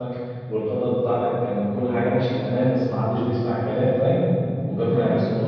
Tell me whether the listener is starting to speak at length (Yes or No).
Yes